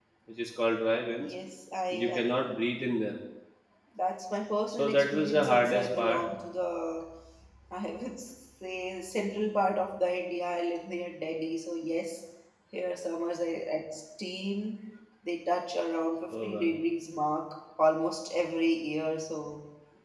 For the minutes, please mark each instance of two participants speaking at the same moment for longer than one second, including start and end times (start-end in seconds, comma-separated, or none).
4.7-6.2